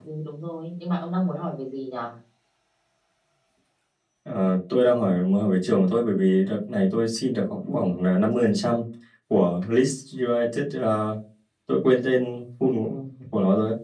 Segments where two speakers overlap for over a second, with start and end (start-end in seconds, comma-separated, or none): none